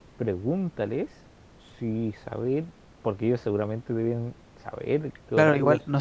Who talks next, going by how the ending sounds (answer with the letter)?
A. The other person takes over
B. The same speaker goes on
A